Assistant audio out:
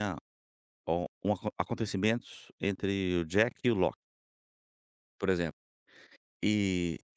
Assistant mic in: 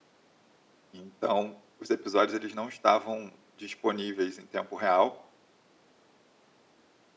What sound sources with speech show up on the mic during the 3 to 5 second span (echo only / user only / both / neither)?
user only